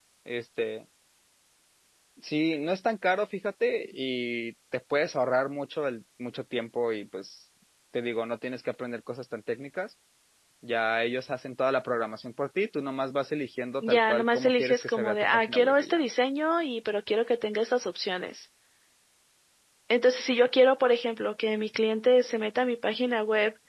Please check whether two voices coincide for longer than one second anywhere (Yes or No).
Yes